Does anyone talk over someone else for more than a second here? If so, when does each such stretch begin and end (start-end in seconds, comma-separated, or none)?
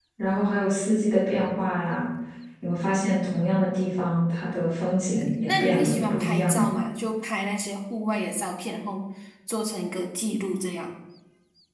5.2-6.7